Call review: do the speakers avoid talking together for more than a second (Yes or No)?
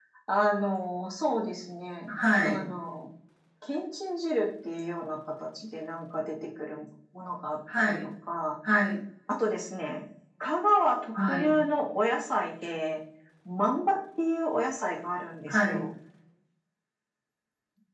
Yes